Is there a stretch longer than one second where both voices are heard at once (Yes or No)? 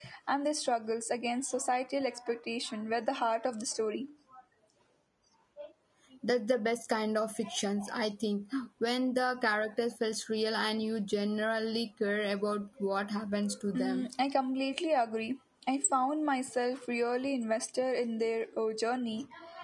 No